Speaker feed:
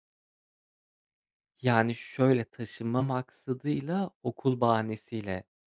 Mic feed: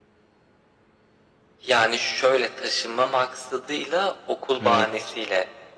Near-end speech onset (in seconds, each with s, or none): 4.6 s